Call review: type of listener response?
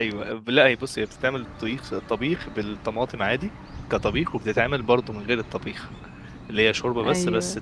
listening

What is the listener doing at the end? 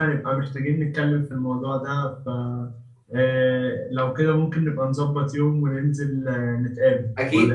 taking over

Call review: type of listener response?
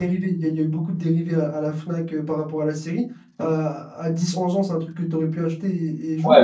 taking over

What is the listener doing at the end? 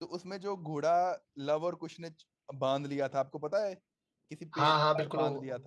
taking over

